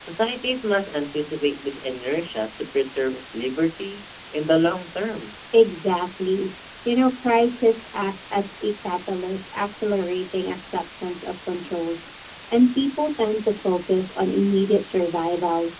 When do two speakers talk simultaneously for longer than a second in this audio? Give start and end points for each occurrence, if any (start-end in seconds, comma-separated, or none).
none